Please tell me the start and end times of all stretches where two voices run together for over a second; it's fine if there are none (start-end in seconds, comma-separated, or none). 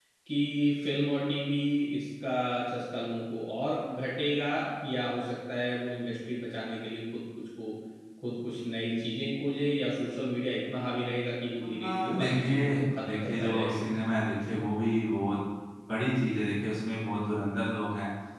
11.8-13.8